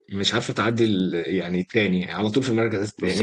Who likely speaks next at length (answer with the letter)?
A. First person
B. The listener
B